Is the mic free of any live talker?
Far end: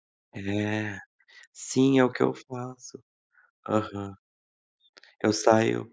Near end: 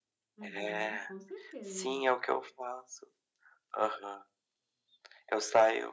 No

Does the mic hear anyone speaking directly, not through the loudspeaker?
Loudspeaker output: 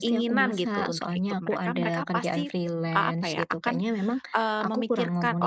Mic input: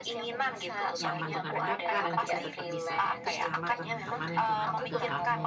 Yes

